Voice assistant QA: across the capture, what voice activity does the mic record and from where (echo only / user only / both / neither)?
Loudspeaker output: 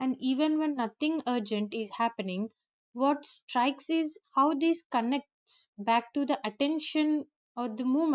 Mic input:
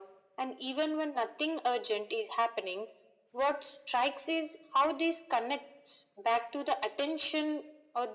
echo only